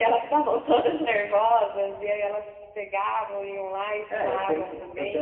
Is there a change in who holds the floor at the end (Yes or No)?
Yes